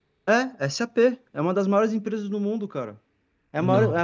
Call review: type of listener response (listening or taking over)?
listening